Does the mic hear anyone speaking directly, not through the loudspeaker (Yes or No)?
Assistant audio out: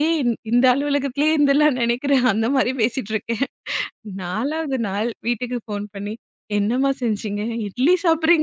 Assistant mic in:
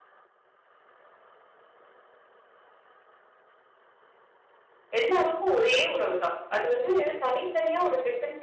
Yes